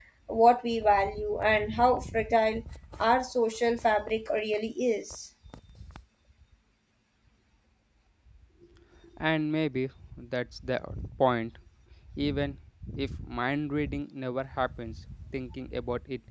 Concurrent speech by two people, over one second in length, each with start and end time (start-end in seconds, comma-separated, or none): none